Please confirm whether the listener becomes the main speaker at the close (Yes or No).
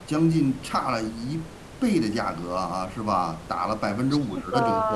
Yes